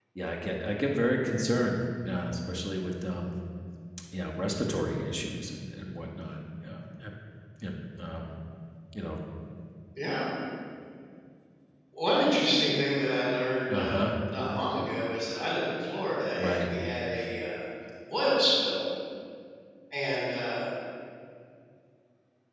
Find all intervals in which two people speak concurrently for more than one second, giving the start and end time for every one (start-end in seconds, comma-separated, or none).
none